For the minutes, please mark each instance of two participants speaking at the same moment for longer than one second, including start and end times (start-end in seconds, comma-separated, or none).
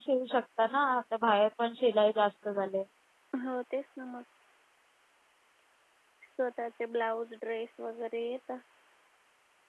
none